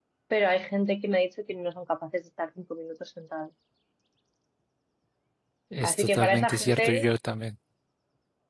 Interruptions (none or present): present